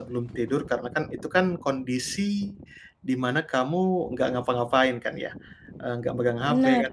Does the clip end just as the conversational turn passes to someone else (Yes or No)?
No